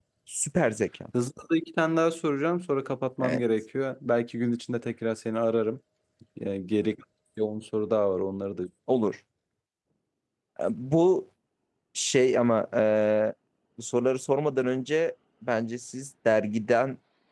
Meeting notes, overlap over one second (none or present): none